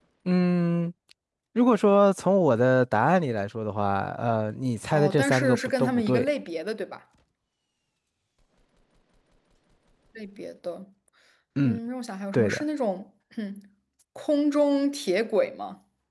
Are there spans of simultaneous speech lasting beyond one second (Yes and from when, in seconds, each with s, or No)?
Yes, from 4.9 s